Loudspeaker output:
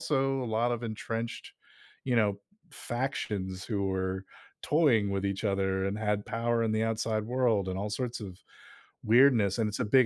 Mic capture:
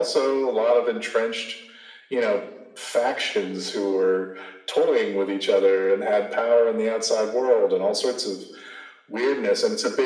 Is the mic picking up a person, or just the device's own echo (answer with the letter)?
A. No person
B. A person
A